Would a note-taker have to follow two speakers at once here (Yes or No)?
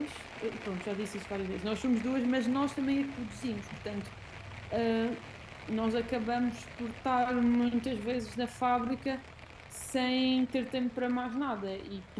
No